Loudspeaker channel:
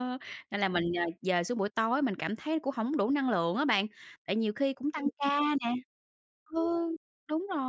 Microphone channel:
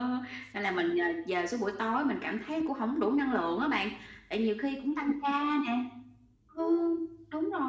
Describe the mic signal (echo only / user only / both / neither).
echo only